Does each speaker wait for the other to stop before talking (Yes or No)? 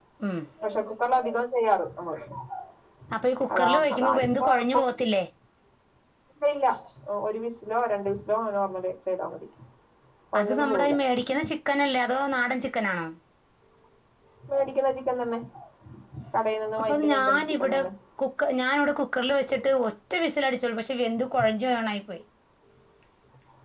No